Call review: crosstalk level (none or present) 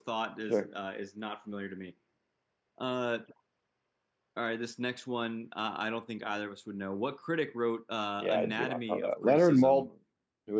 present